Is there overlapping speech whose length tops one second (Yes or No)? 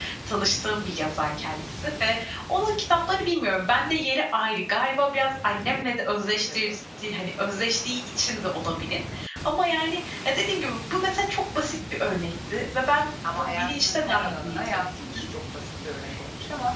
Yes